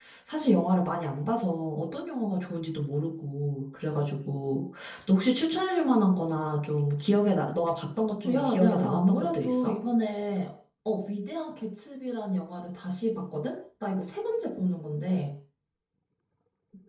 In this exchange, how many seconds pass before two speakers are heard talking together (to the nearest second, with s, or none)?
8 s